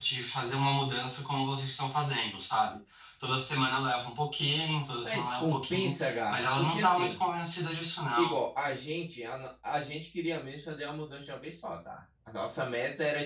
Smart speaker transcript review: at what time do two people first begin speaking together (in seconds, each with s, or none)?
5.0 s